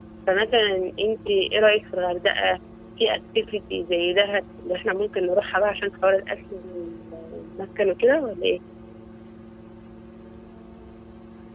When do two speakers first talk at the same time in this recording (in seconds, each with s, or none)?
none